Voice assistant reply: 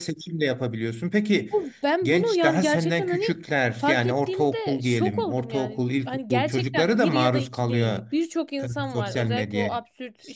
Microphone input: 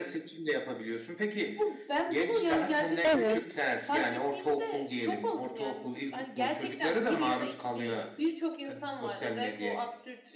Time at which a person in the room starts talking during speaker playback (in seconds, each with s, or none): 3.0 s